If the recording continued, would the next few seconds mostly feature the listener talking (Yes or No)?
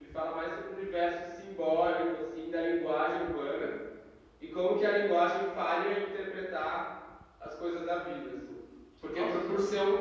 No